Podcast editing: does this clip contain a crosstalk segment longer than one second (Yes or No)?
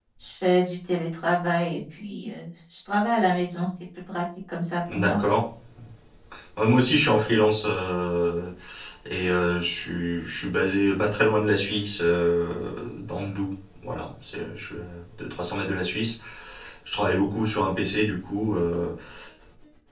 No